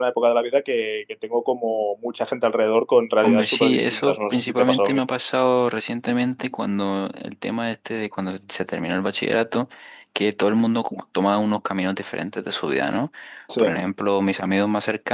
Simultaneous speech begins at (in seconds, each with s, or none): 3.2 s